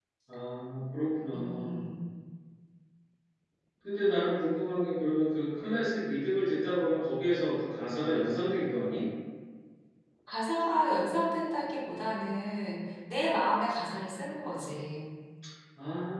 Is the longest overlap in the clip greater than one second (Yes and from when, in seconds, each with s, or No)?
No